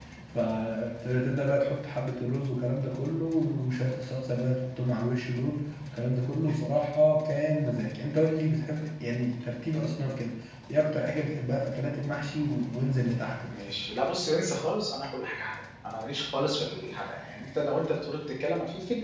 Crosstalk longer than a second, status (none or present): none